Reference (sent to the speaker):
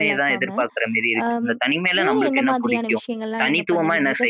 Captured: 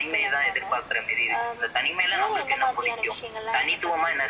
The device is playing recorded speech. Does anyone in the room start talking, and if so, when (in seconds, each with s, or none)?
none